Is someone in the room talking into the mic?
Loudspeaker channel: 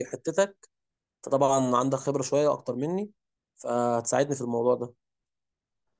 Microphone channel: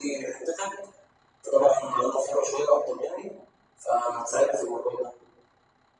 No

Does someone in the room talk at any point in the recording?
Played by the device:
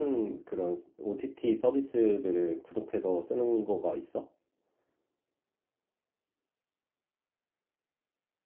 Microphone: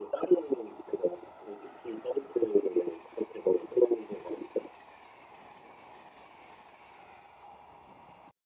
No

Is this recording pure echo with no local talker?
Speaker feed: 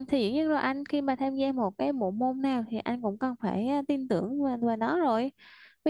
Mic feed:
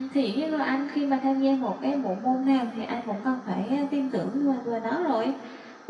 Yes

